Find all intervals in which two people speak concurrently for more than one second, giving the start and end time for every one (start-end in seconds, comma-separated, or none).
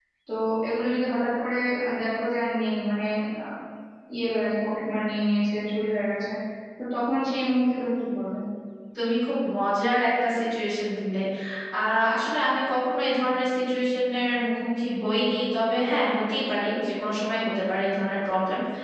none